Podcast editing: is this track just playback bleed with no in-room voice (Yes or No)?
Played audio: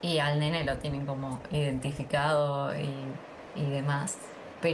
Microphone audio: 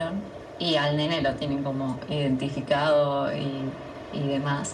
Yes